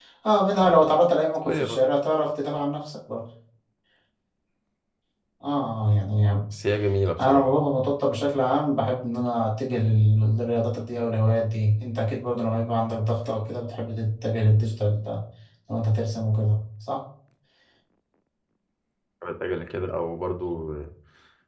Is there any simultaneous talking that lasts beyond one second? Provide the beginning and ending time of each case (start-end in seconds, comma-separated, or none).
none